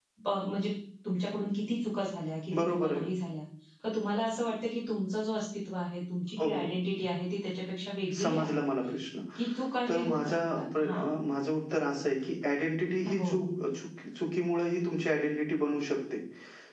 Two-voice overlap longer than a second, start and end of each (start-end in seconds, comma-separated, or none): 9.9-11.1